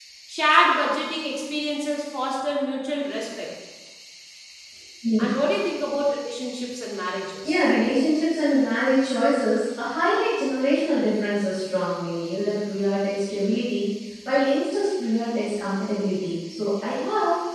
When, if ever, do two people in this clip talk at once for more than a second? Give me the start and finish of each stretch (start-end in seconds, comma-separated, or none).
none